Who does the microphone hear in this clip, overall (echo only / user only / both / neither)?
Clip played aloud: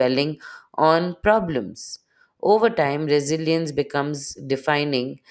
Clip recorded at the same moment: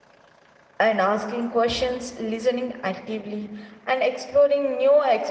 user only